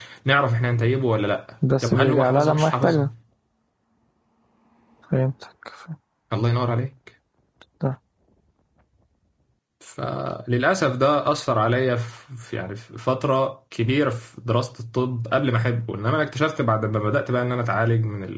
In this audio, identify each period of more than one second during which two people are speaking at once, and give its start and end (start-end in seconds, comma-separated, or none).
1.8-3.0